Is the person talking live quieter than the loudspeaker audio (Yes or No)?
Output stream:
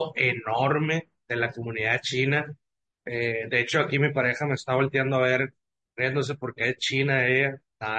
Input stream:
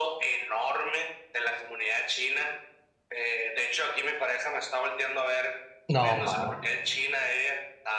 No